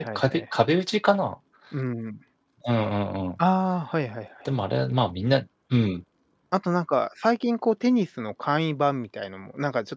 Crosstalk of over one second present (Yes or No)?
No